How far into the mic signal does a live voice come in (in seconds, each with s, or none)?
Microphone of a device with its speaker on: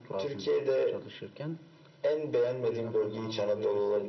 none